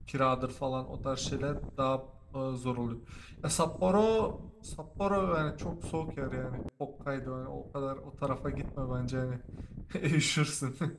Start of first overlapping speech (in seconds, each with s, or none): none